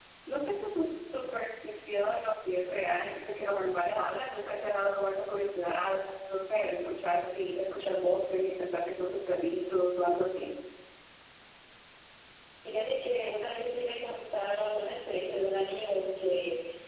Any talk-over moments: No

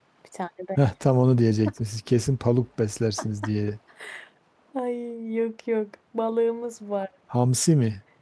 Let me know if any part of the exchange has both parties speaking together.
No

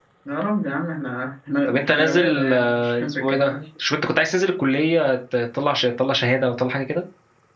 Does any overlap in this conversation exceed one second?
Yes, from 1.7 s

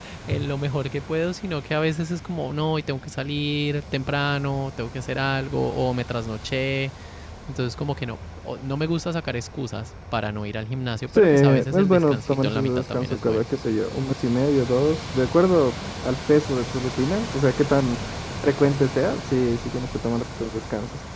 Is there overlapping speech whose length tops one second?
Yes, from 11.2 s

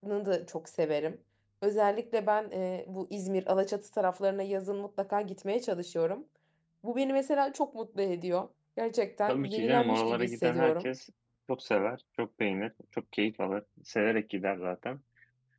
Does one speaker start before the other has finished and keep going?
Yes, from 9.3 s

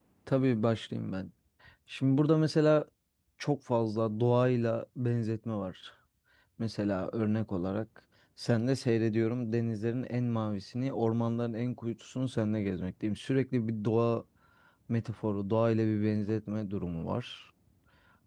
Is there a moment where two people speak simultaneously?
No

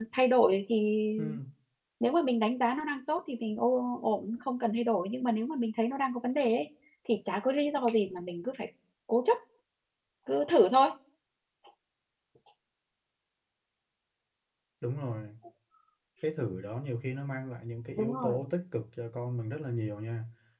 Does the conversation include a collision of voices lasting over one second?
No

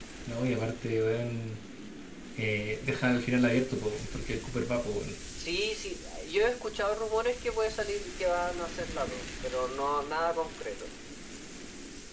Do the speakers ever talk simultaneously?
No

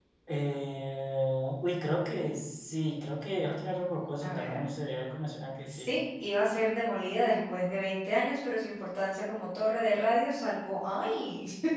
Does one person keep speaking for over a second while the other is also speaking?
No

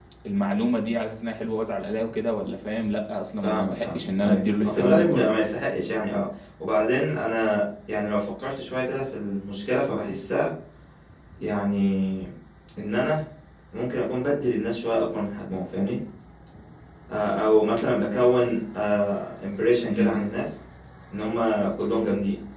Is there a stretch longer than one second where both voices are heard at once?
Yes, from 3.4 s

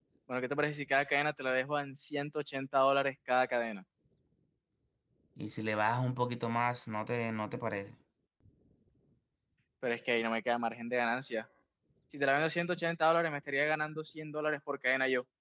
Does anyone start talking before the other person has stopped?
No

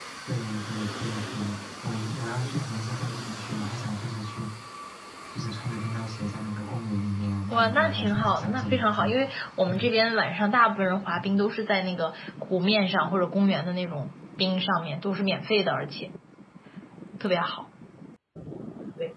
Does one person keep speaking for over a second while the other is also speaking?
Yes, from 7.5 s

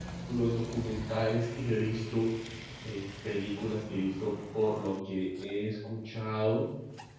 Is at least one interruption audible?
No

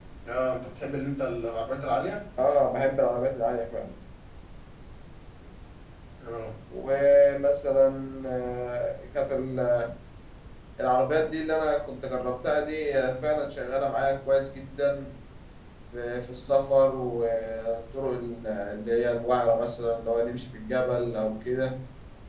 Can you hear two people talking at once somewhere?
No

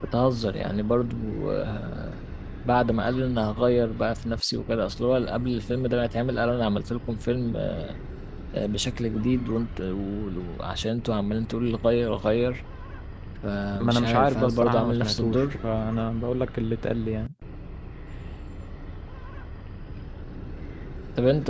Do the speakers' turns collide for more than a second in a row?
Yes, from 13.8 s

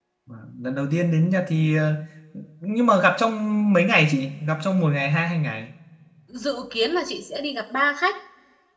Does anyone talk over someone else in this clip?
No

